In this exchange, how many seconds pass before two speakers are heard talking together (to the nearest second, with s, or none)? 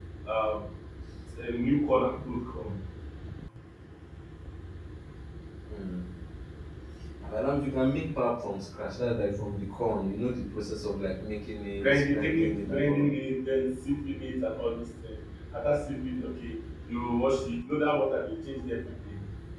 12 s